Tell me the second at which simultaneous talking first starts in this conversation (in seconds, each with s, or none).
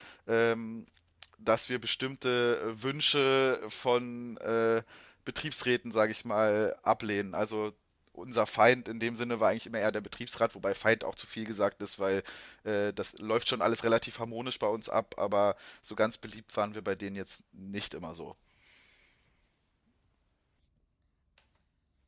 none